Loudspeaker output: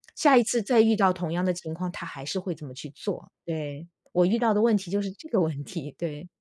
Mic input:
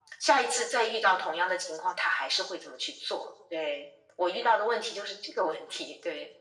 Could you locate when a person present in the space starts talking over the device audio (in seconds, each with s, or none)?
none